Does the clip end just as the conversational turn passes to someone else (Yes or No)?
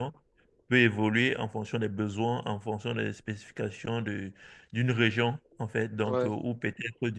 No